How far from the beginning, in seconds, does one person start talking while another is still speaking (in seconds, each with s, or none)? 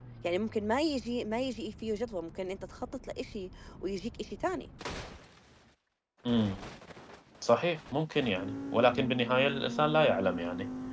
none